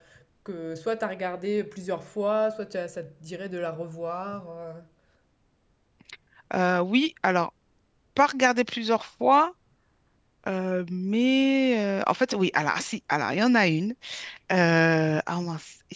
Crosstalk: none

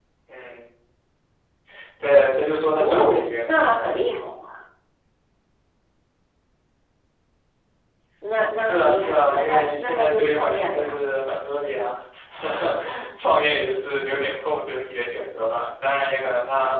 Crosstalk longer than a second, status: present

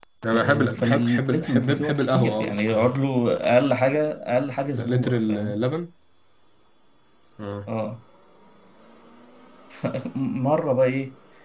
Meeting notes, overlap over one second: present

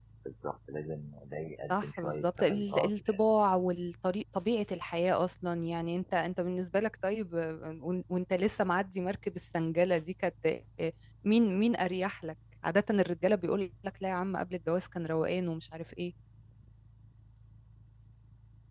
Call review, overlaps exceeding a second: present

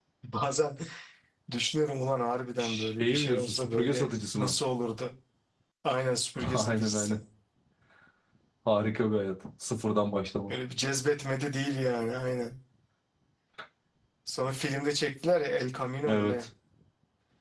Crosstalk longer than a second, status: present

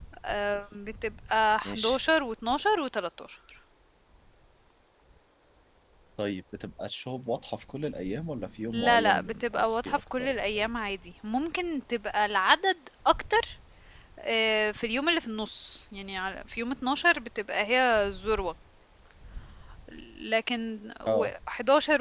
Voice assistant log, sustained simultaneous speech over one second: present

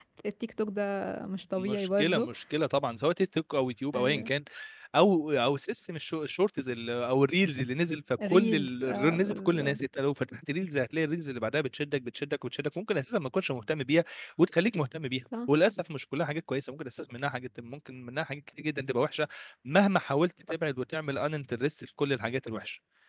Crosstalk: present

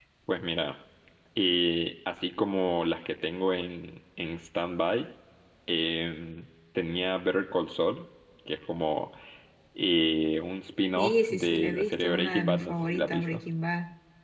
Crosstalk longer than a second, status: present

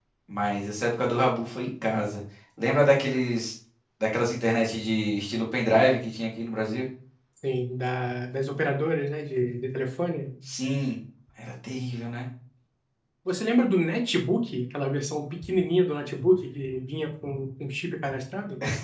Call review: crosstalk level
none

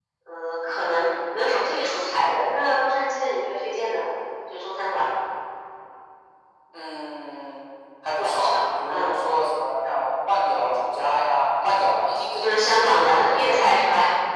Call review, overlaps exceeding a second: present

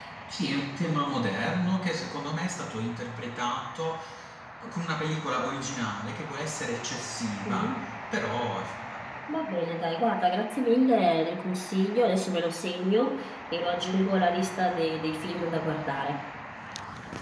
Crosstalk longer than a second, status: none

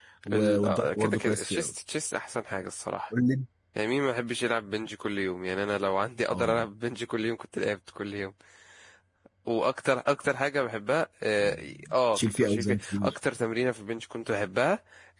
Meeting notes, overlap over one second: present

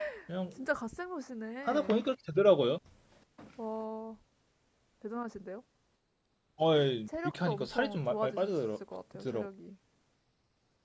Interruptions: present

